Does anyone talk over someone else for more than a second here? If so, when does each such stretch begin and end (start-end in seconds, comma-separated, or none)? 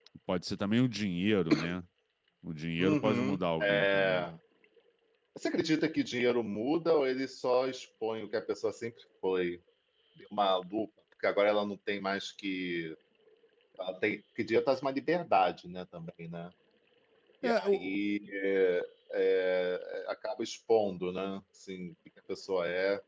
2.8-4.3